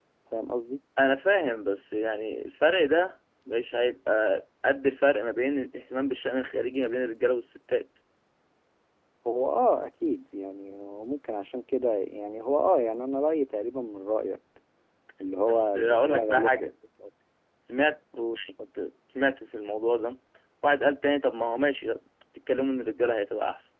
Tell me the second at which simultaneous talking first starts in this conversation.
15.5 s

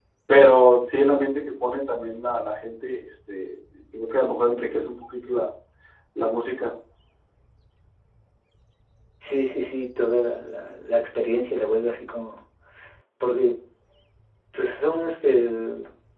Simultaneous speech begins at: none

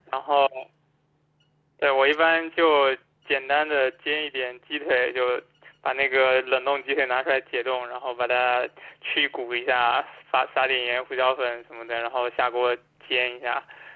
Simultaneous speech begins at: none

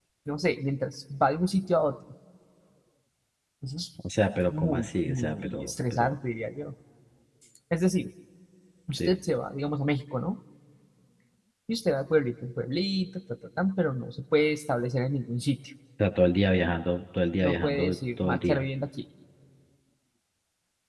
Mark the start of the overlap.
4.5 s

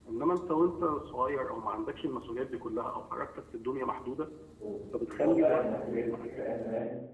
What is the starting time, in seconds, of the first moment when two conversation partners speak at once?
5.1 s

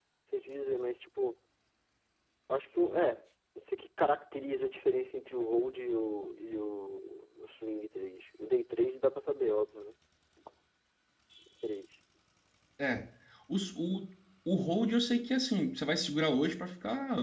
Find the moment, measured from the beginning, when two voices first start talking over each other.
none

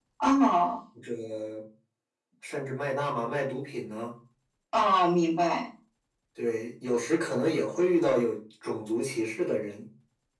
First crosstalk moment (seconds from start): none

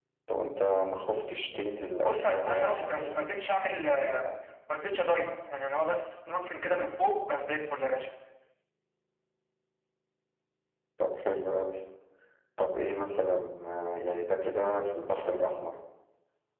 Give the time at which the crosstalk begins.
2.0 s

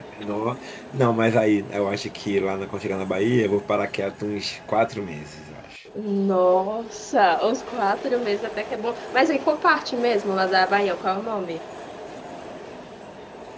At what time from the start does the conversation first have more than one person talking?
none

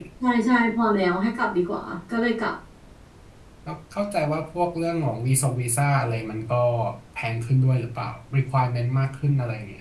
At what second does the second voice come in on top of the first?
none

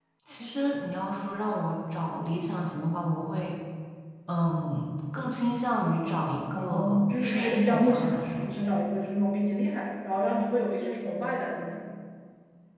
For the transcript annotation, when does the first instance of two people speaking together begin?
6.5 s

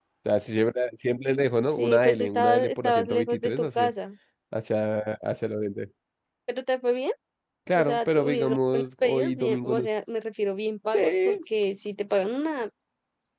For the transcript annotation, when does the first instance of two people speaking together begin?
1.7 s

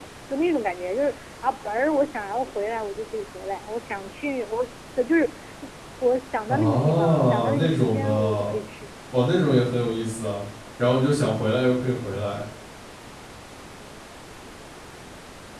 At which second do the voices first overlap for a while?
6.5 s

